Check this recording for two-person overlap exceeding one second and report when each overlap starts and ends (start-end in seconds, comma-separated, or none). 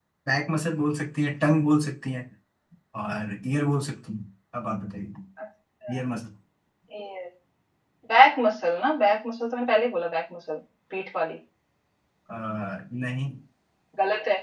none